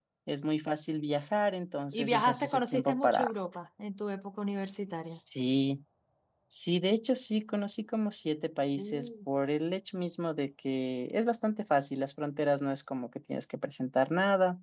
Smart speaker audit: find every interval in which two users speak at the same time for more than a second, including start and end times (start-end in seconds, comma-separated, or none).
1.9-3.3